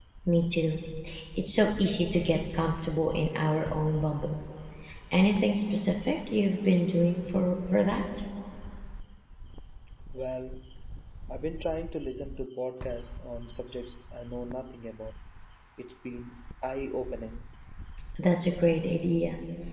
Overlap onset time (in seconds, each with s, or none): none